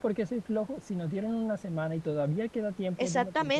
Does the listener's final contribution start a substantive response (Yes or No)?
Yes